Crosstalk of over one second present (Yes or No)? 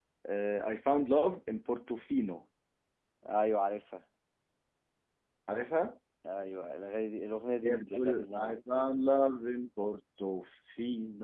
Yes